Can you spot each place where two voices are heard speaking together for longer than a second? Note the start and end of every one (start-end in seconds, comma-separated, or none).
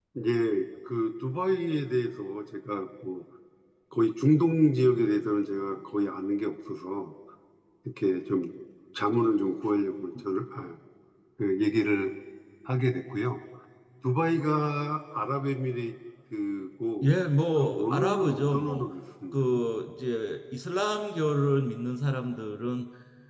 17.6-18.9